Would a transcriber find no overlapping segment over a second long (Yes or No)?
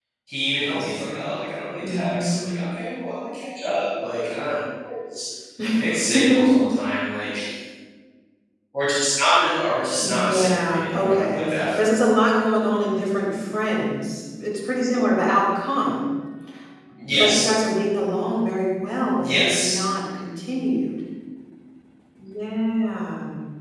No